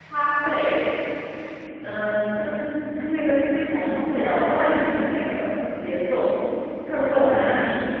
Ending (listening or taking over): listening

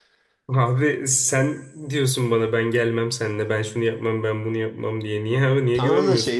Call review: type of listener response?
taking over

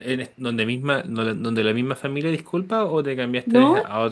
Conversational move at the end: taking over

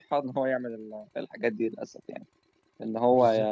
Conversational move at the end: listening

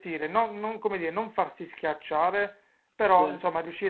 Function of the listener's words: listening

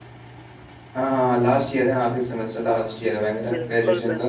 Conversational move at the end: taking over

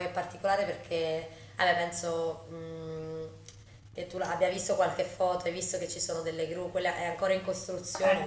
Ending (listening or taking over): listening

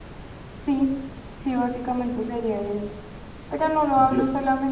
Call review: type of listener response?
listening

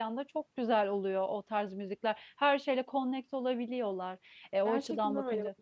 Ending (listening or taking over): taking over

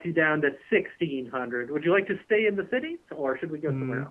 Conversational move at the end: taking over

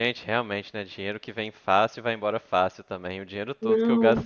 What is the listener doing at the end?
listening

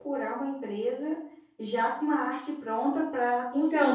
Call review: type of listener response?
taking over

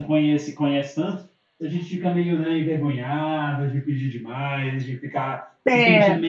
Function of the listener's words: listening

